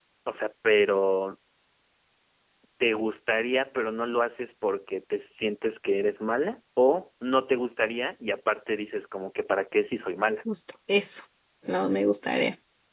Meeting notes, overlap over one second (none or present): none